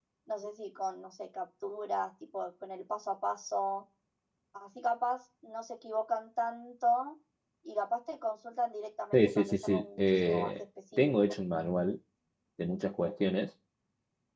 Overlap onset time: 9.1 s

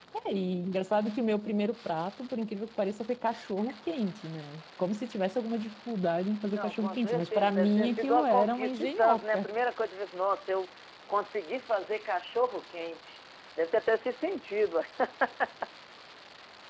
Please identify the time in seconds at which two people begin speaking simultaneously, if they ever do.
6.6 s

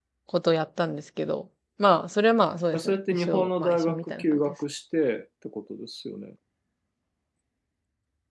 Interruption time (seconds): 2.7 s

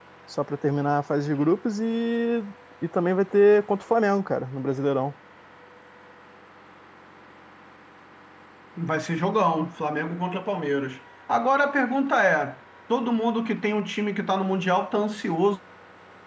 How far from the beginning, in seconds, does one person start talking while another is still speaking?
none

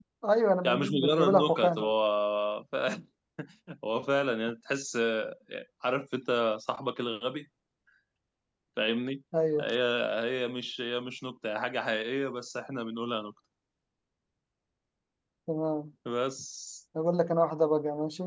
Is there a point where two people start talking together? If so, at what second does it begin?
0.6 s

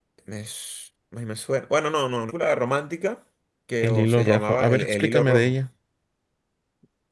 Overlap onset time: 3.8 s

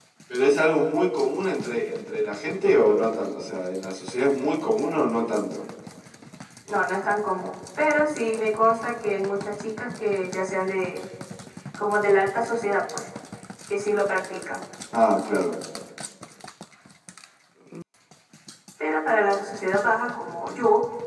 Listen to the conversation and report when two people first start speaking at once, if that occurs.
none

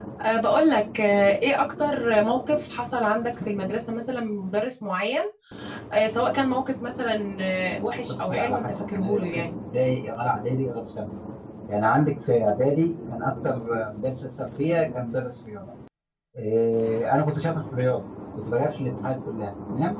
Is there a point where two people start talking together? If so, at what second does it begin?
8.1 s

